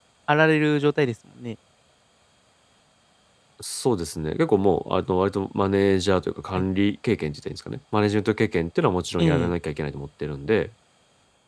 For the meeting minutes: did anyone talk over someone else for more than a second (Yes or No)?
No